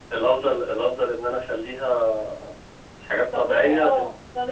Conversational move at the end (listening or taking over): taking over